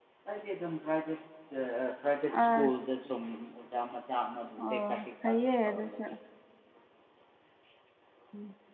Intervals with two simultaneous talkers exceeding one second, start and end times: 4.7-6.0

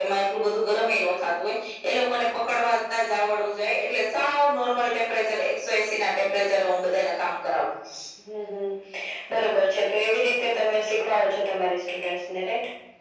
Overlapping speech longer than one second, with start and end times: none

